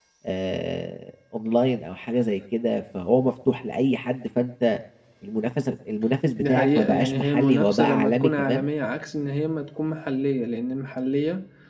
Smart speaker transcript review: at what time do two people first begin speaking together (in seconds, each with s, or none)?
6.4 s